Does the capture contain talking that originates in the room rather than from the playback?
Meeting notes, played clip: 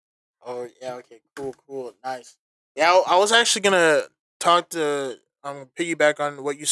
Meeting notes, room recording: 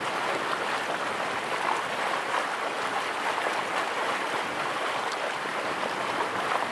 No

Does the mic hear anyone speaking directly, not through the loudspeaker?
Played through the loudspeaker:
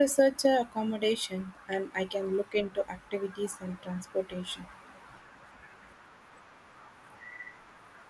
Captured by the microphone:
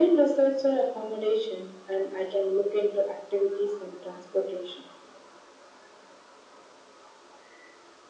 No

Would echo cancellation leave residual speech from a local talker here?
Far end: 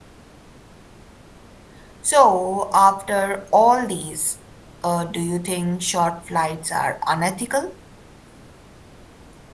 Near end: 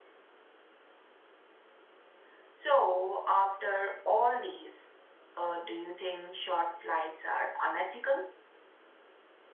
No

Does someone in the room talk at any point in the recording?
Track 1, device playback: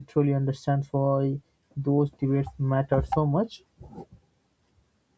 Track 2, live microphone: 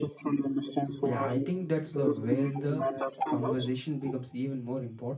Yes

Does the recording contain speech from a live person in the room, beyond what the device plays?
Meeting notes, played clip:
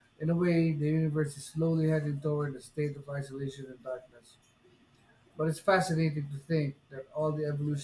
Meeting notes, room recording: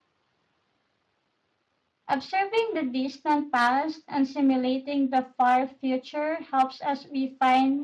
Yes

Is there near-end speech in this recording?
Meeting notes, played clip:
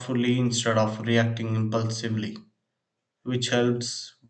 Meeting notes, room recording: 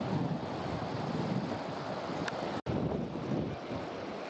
No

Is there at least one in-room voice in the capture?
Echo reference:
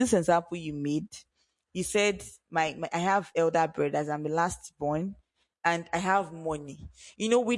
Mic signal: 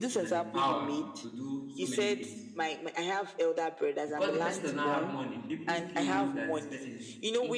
Yes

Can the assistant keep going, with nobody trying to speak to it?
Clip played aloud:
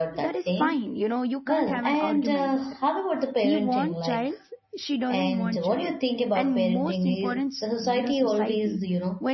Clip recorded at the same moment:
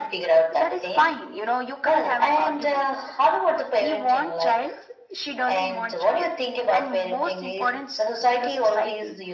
Yes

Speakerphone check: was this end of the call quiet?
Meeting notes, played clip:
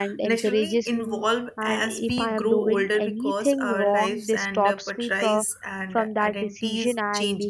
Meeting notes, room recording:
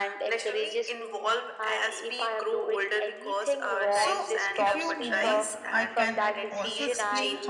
No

